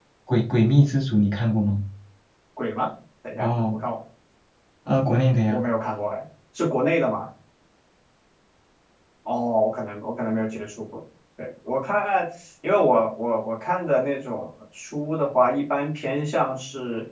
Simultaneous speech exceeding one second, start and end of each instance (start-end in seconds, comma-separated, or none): none